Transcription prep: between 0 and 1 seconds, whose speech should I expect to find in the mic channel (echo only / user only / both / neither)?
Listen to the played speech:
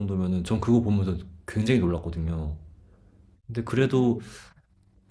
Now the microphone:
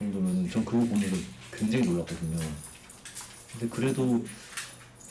echo only